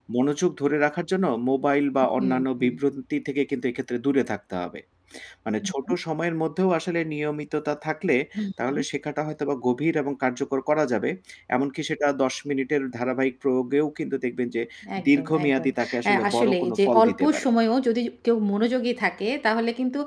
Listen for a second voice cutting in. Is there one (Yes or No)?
Yes